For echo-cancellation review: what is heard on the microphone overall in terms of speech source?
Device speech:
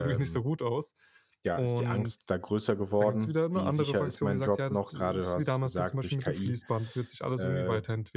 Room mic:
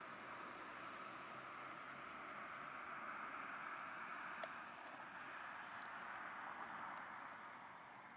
neither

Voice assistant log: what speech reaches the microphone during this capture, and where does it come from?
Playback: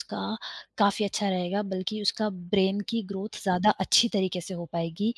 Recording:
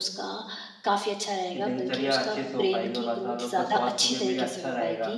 both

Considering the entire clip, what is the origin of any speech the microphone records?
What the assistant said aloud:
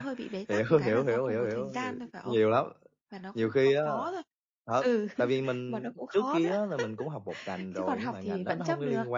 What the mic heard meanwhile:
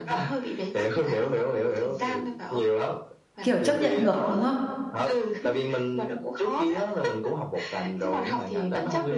both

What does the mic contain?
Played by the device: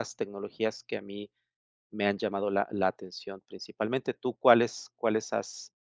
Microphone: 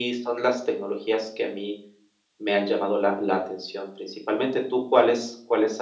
echo only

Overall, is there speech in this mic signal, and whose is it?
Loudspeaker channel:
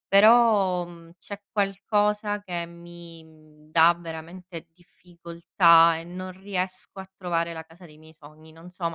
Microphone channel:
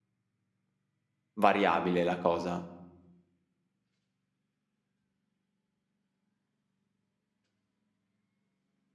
user only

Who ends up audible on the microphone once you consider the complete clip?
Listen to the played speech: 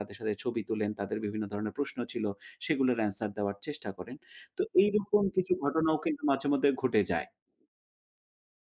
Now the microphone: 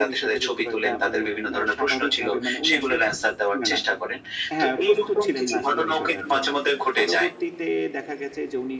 both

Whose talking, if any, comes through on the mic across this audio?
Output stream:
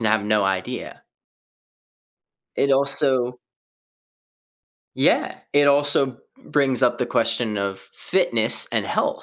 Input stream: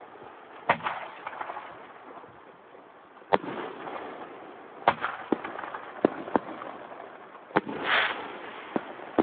neither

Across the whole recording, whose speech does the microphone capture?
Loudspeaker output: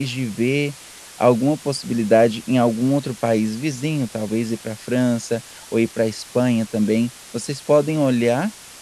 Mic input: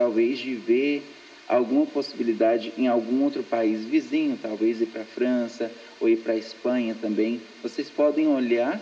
echo only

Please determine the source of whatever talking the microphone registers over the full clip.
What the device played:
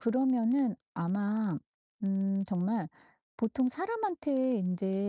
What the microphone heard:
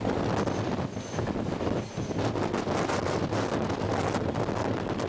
neither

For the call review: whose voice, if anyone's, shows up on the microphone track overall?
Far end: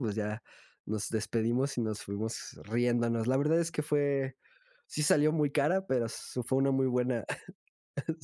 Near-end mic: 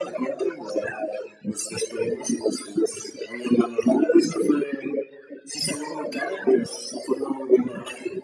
echo only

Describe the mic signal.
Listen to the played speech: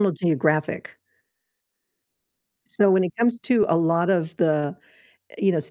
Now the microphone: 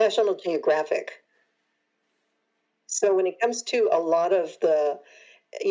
echo only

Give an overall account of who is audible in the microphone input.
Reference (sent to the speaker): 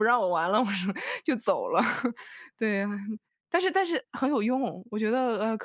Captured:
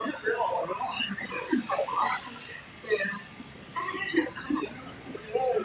echo only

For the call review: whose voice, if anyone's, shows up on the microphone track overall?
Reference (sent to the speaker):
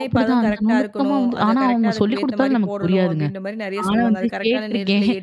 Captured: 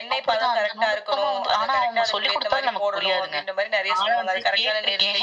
echo only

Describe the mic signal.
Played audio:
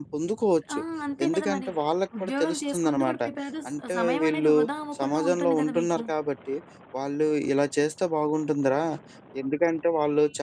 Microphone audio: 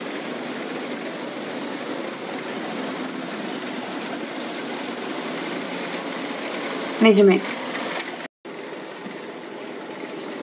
user only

